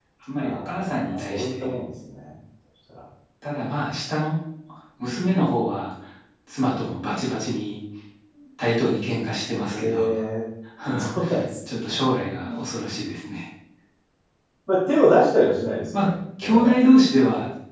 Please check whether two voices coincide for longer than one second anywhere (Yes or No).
Yes